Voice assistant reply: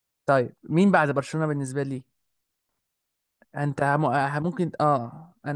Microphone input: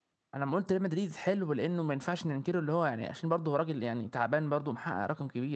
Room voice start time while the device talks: 0 s

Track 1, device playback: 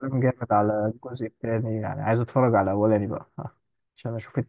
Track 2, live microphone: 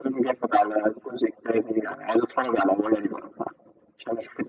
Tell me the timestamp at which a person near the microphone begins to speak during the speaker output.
none

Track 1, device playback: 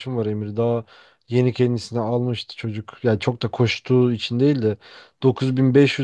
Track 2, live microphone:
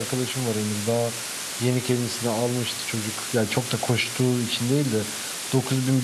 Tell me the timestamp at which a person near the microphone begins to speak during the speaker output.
none

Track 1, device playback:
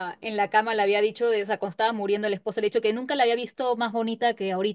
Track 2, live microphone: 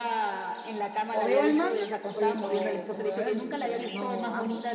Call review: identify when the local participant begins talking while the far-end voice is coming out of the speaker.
1 s

